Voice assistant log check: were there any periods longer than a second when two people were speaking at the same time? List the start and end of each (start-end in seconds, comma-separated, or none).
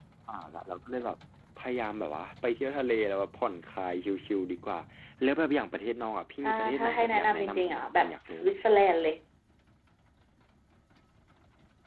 6.4-8.6